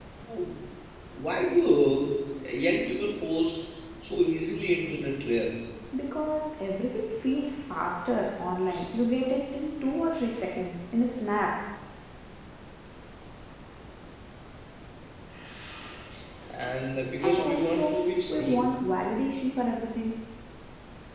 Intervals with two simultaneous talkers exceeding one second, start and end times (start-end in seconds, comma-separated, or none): 17.2-18.7